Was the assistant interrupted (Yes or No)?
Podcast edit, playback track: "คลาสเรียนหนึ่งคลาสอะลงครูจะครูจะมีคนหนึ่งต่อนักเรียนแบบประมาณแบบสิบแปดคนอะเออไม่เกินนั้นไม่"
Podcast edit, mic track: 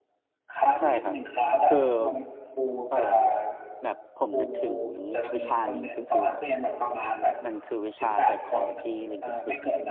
Yes